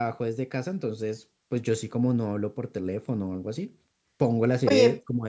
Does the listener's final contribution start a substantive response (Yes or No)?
Yes